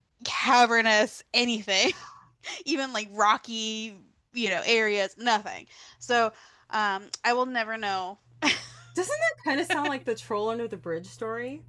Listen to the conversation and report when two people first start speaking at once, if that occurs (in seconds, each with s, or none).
none